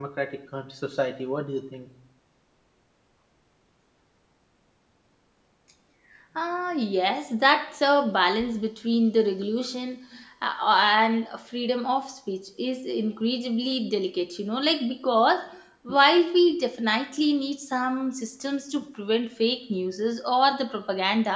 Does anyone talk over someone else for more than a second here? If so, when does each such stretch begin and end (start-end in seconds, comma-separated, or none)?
none